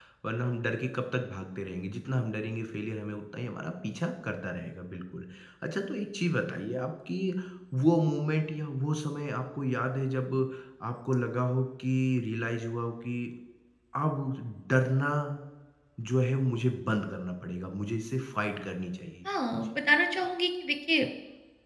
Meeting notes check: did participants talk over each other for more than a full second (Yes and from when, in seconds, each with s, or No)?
No